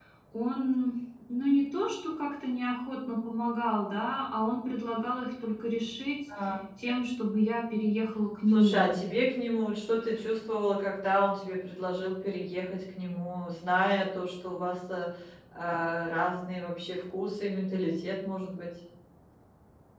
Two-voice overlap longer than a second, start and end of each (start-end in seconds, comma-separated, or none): none